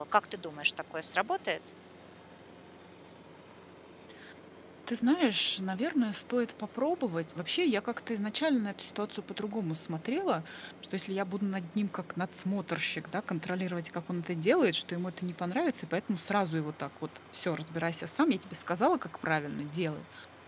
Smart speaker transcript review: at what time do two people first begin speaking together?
none

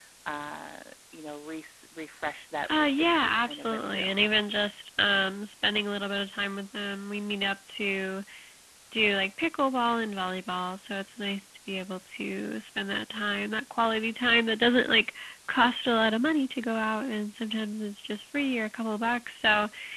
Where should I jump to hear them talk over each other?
2.6 s

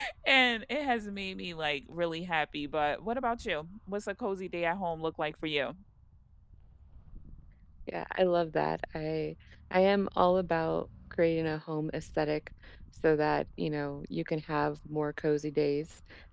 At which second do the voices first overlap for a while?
none

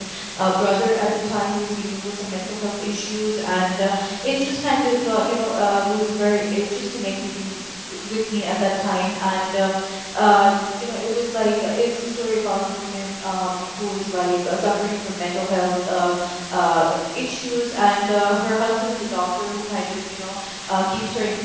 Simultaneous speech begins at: none

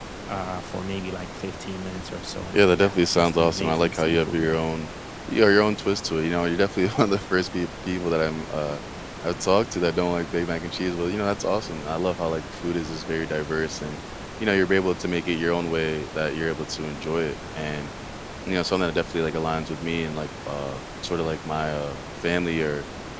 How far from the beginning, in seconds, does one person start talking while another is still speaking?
2.5 s

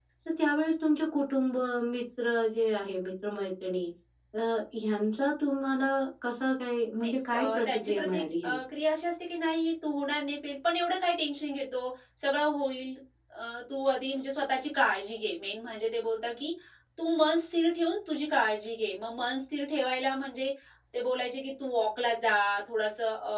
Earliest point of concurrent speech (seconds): 7.0 s

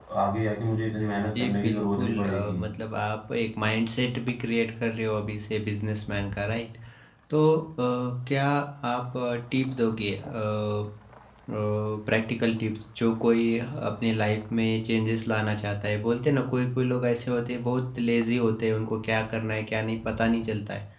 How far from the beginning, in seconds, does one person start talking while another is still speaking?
1.4 s

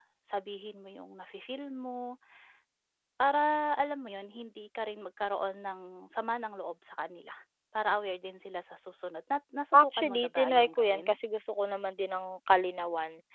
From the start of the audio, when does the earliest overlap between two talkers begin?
9.7 s

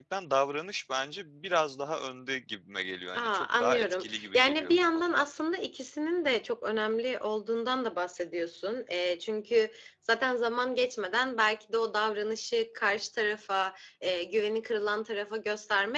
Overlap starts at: 3.1 s

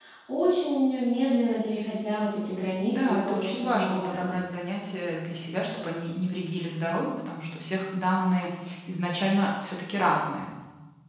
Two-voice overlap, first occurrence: 2.8 s

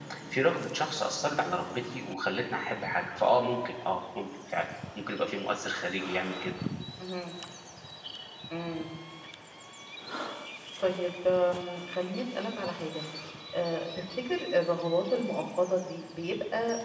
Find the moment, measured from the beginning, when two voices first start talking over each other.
none

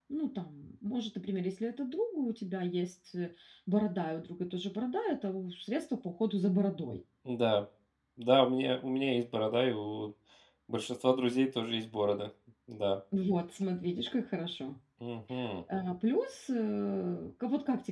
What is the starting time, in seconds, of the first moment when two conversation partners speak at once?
none

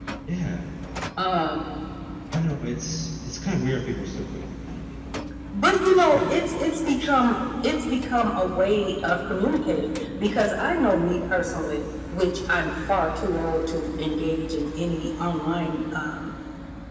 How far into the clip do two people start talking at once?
6.0 s

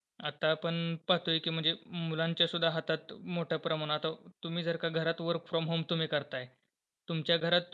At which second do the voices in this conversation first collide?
none

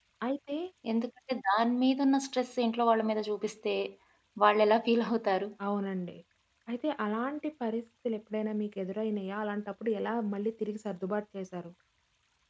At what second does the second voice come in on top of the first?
none

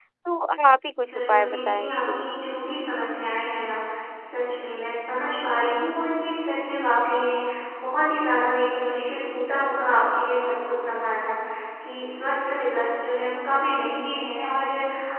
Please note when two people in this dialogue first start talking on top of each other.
1.1 s

